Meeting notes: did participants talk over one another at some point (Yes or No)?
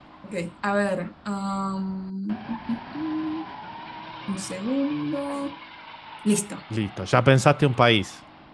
No